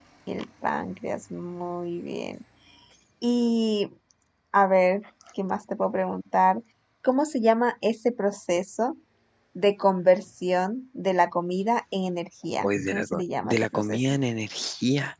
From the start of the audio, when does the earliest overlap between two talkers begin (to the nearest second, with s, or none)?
13 s